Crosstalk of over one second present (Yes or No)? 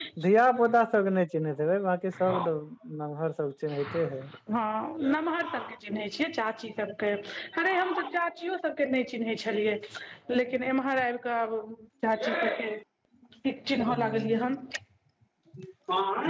No